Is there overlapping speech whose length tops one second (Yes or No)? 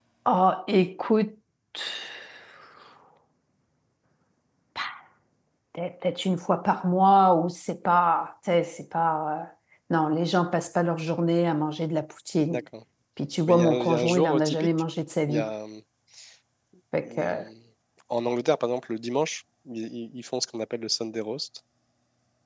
Yes